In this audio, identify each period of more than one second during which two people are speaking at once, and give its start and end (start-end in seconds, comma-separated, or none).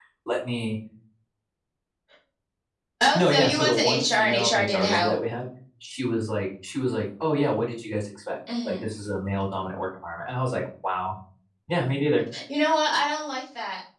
3.1-5.2